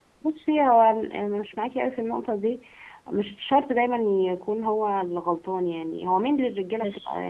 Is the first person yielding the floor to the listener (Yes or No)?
No